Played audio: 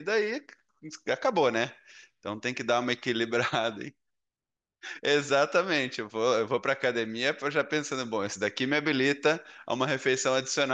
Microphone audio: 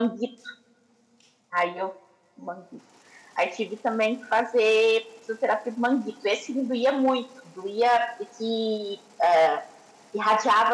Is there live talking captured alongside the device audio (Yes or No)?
Yes